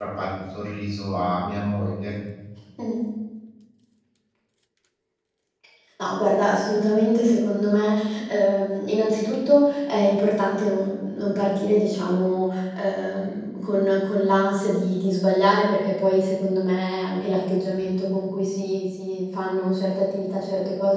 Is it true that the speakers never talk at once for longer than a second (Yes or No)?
Yes